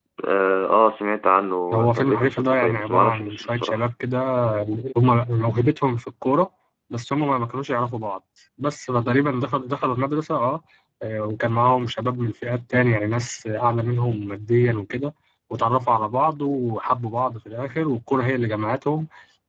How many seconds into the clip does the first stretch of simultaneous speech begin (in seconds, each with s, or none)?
1.7 s